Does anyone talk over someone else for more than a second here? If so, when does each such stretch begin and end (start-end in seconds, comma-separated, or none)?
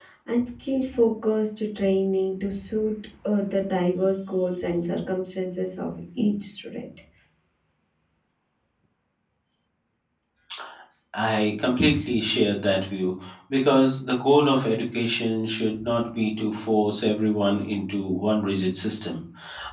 none